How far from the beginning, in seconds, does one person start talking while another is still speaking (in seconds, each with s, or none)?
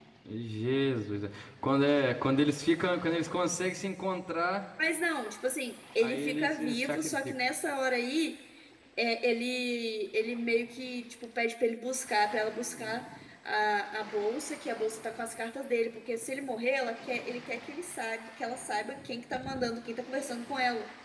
6.0 s